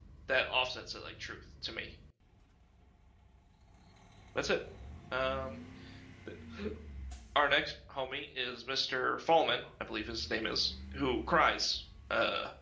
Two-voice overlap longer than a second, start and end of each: none

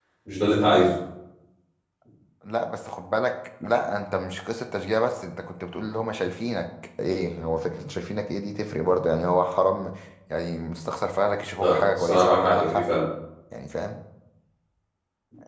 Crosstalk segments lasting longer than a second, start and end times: 11.6-12.9

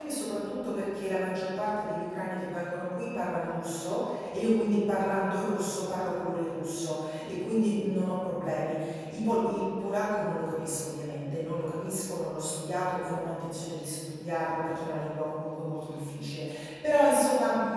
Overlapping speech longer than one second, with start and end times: none

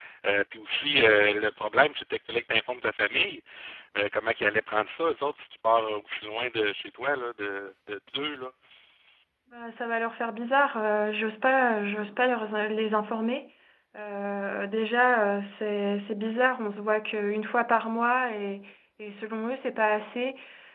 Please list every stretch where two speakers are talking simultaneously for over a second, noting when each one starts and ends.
none

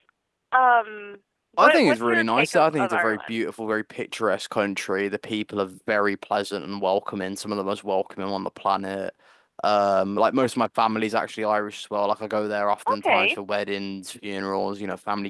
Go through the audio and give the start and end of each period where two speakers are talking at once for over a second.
1.6-3.3

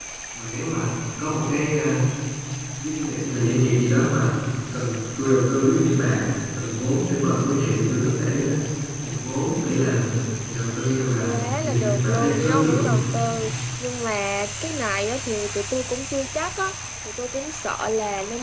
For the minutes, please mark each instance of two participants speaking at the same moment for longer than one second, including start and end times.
11.2-13.0

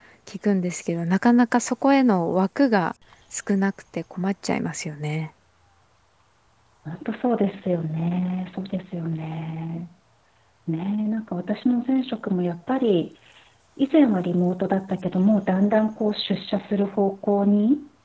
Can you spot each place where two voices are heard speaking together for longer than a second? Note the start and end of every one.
none

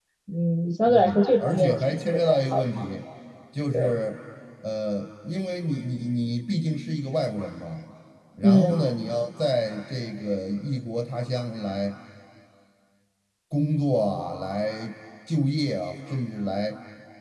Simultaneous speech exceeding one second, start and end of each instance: 0.9-2.8

